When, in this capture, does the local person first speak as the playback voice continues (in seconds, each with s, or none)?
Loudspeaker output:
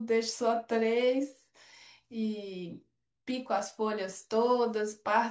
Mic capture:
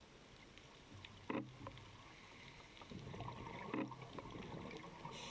none